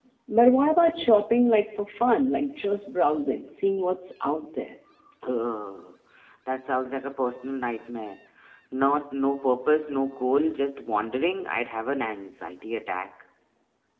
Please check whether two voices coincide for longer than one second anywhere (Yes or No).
No